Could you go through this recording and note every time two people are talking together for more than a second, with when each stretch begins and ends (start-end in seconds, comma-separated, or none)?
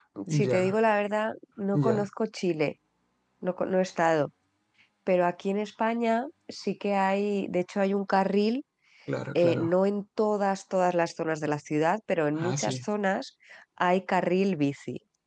none